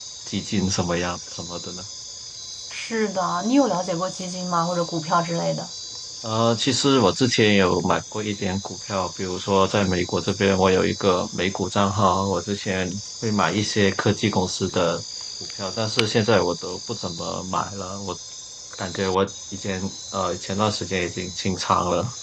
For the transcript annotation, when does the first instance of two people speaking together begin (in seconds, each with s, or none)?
none